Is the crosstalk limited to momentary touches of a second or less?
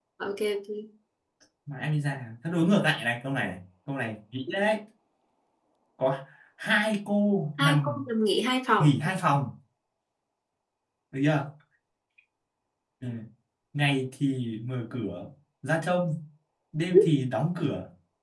Yes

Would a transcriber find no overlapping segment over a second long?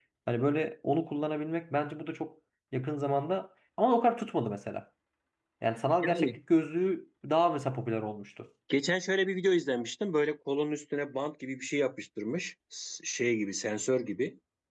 Yes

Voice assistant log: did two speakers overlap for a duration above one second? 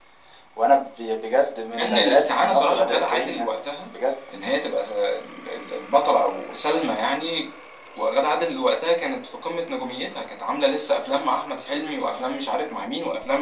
Yes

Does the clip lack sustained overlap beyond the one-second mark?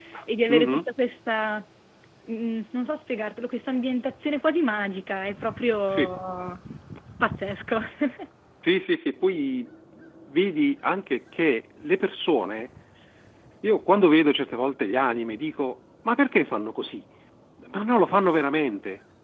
Yes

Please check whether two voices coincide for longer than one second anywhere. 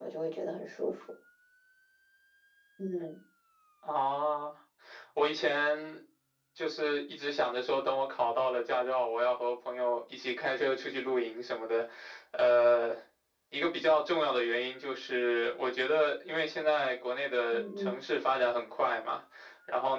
No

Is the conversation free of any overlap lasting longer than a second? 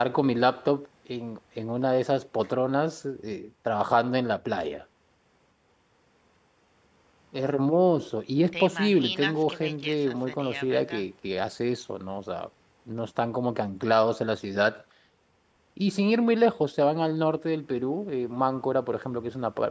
No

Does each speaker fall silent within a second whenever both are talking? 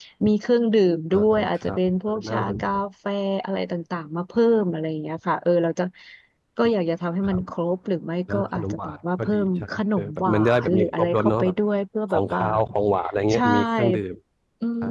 No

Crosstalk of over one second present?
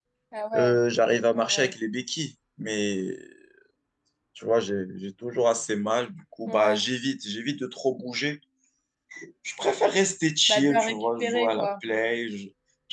Yes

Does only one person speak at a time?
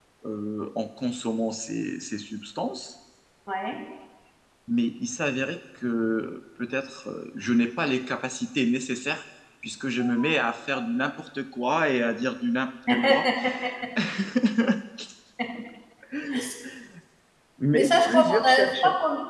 No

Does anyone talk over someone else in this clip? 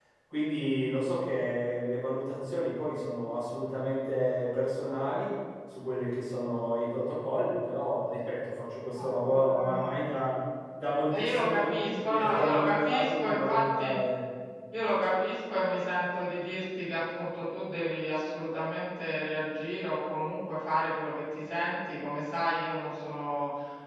Yes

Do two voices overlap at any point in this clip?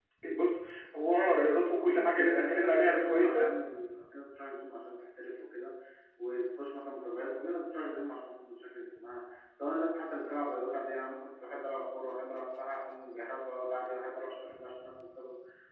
Yes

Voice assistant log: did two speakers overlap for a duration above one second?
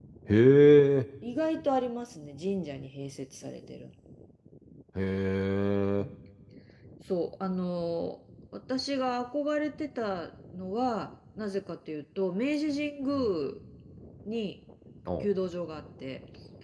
No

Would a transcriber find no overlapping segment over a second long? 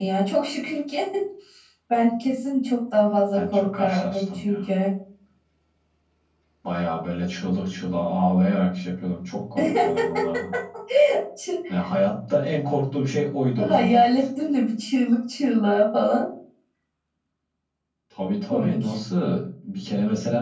No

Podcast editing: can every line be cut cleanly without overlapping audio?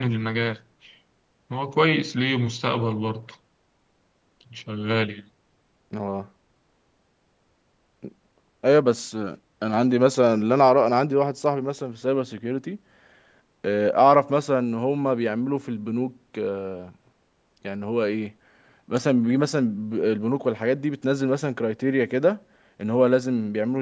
Yes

